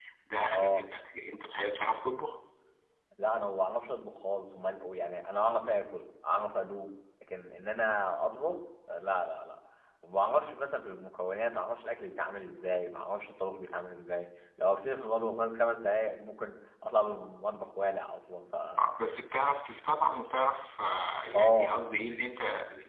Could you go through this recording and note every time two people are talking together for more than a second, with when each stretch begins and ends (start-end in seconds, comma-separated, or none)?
none